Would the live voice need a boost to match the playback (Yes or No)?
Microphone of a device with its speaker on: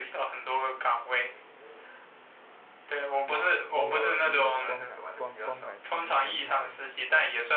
Yes